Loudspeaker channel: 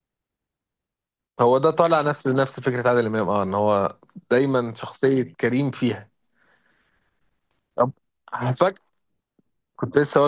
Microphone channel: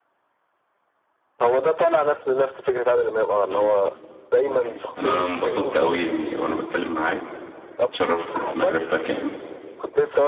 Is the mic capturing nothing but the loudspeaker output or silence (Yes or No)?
No